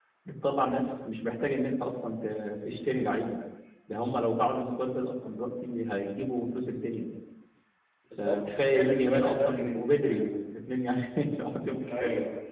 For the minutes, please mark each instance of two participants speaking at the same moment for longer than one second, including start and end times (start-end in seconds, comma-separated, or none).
8.2-10.1